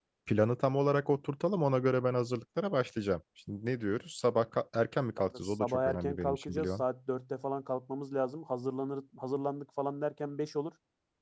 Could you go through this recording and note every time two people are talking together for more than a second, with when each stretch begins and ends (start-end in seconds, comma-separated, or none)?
5.2-6.8